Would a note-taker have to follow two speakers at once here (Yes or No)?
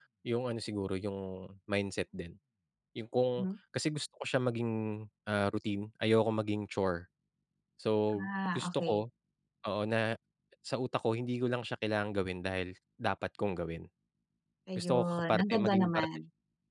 Yes